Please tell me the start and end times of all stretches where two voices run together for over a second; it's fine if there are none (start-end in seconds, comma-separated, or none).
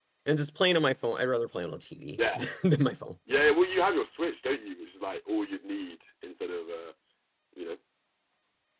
none